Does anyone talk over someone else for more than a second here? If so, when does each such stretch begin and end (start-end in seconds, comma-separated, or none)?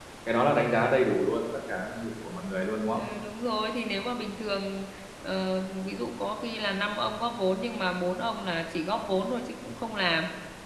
none